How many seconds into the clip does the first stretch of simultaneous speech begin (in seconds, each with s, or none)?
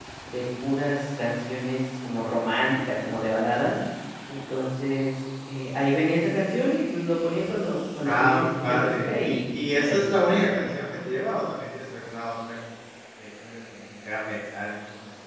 8.0 s